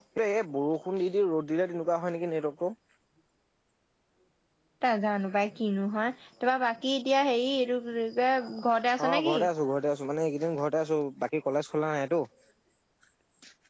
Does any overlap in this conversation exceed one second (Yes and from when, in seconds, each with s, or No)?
No